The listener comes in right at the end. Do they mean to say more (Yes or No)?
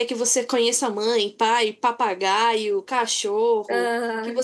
No